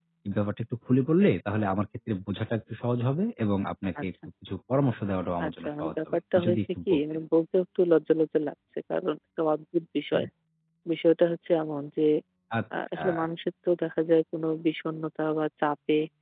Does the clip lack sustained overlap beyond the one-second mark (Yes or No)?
No